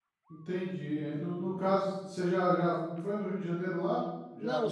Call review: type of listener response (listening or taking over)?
taking over